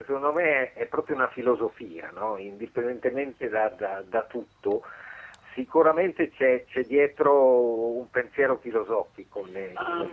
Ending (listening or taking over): taking over